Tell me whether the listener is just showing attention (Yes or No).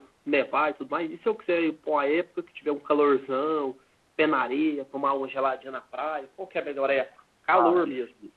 No